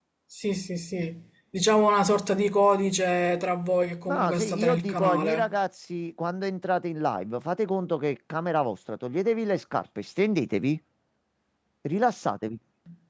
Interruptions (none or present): present